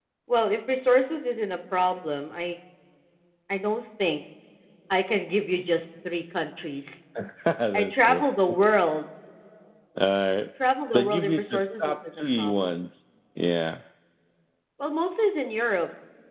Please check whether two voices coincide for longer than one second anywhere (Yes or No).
Yes